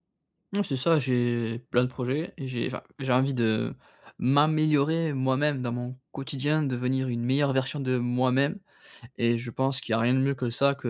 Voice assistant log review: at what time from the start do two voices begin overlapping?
none

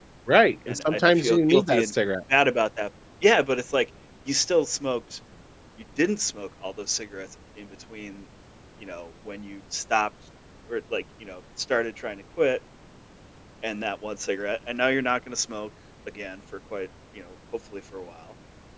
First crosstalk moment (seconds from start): 0.7 s

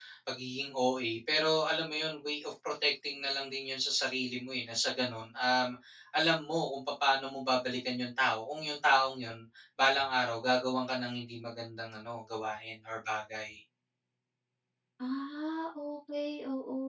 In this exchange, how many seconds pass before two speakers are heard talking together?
none

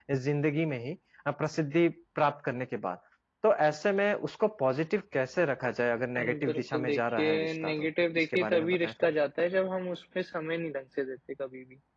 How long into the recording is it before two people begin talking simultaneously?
6.2 s

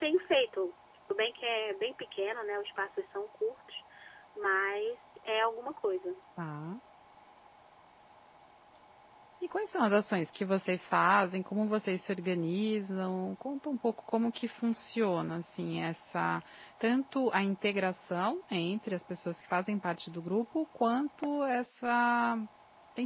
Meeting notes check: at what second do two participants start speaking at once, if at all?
none

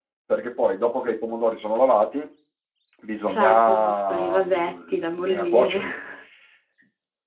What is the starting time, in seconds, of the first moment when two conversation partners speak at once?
3.3 s

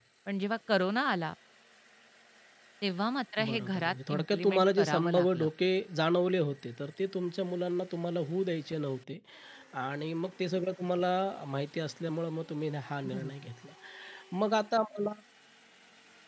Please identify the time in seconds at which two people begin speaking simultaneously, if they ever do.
3.4 s

